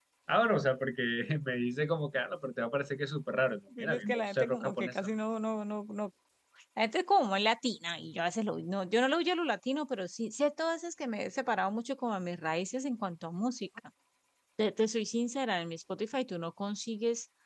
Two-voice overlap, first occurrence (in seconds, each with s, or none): 3.7 s